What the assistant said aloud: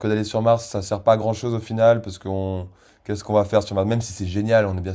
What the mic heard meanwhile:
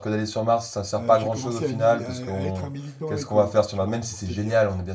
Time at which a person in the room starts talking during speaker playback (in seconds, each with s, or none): 1.0 s